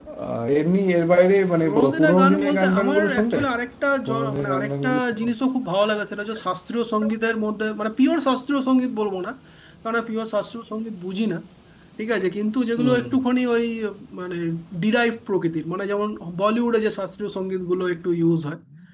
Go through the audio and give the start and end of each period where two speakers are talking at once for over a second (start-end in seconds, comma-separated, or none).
1.6-3.4, 4.0-5.2